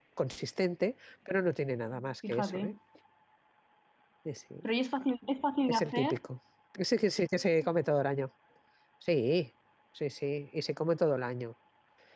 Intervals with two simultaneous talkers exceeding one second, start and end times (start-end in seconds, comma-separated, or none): none